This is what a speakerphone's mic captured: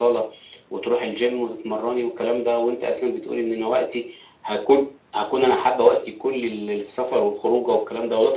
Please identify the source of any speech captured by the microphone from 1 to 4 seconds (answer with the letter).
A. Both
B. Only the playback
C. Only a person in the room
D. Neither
B